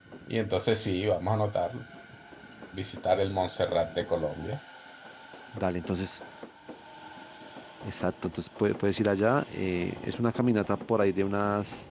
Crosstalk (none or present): none